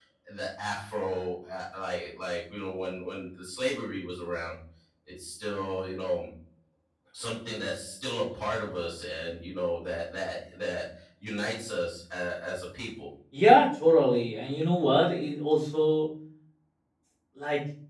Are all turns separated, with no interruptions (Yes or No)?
Yes